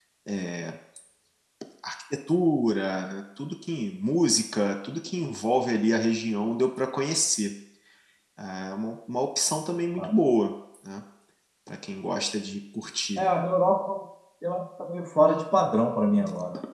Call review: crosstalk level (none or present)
none